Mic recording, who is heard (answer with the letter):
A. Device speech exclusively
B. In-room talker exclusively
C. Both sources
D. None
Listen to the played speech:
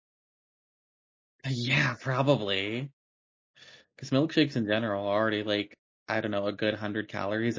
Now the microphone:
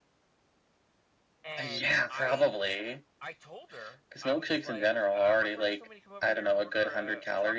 C